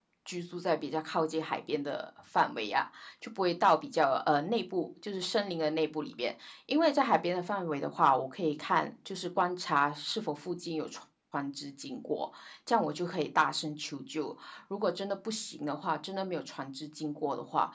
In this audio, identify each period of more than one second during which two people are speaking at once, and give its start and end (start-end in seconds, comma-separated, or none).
none